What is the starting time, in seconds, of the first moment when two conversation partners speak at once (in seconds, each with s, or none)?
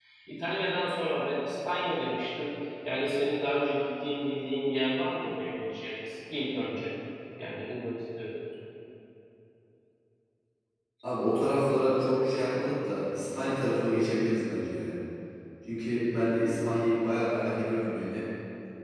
none